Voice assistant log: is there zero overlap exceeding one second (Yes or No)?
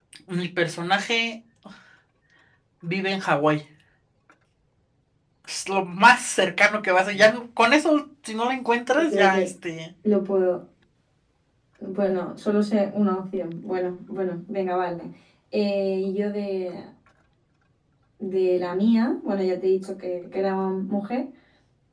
Yes